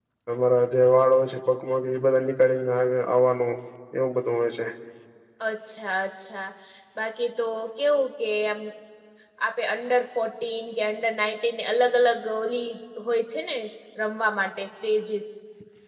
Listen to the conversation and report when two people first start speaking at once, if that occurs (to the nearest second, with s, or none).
none